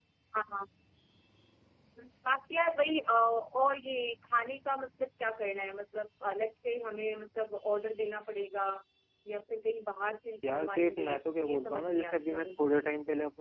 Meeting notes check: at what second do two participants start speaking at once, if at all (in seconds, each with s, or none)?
10.4 s